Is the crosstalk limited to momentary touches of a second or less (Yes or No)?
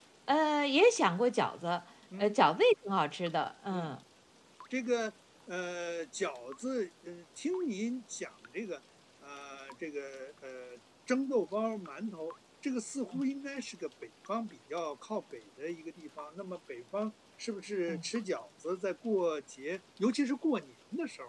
Yes